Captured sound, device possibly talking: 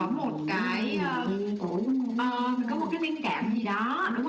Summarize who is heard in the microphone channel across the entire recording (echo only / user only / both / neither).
echo only